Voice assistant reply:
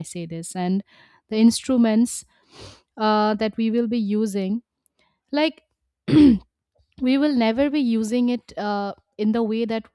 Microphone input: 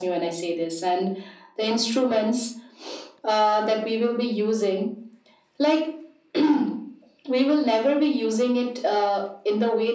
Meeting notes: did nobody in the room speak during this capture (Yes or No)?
Yes